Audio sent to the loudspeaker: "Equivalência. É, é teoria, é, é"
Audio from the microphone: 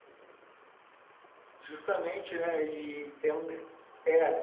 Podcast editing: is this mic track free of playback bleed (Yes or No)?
Yes